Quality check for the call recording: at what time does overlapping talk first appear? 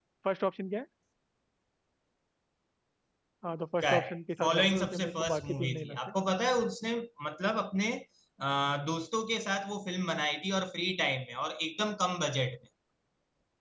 4 s

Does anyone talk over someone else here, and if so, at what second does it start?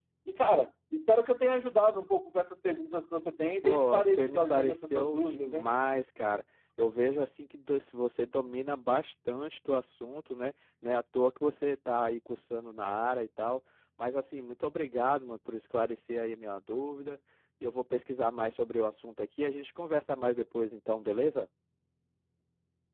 4 s

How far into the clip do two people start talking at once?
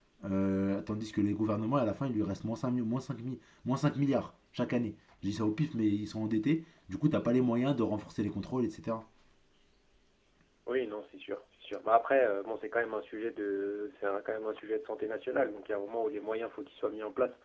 none

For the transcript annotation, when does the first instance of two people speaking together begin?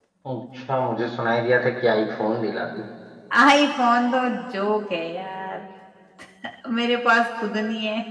none

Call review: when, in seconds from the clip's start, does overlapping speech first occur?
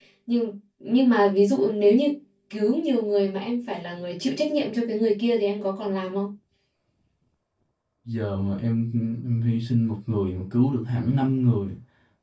none

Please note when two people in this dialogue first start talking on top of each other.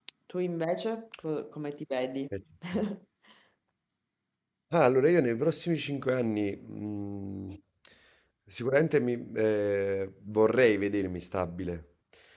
none

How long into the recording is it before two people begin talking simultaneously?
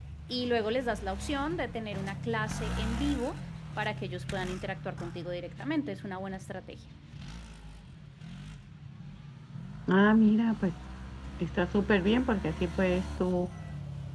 none

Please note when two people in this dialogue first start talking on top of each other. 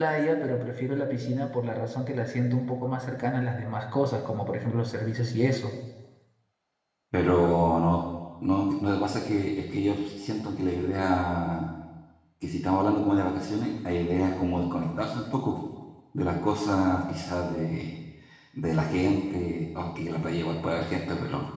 none

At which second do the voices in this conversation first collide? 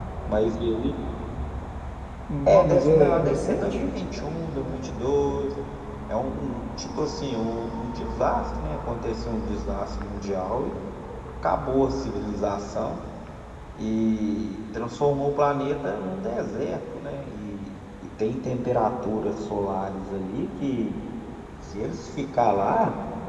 2 s

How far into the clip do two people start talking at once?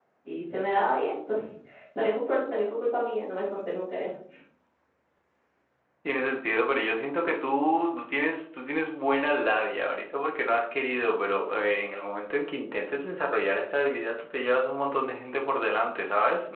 none

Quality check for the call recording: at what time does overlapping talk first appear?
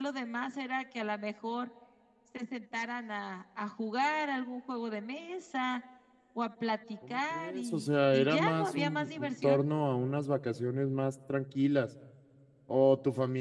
7 s

